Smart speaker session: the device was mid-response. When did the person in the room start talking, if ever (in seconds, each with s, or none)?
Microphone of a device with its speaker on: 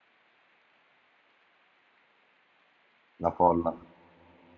3.2 s